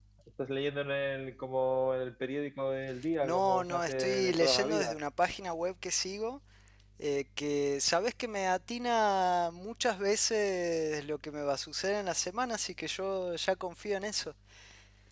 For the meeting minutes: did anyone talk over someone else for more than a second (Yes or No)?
Yes